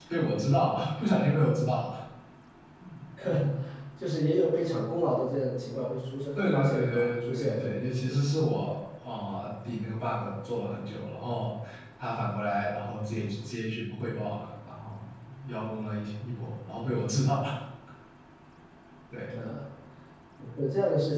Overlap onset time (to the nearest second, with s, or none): 6 s